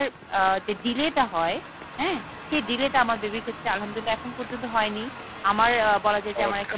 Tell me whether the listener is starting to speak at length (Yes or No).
No